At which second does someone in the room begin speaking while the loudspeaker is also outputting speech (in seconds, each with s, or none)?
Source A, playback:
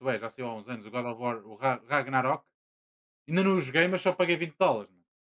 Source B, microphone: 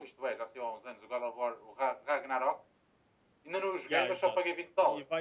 3.9 s